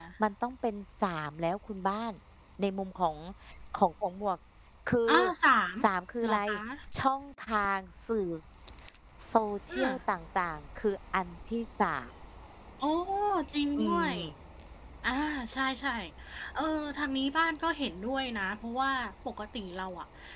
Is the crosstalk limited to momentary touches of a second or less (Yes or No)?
Yes